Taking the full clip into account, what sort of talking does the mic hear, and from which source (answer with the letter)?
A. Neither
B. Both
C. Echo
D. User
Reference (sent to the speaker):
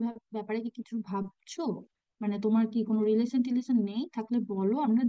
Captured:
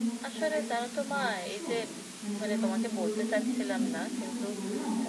B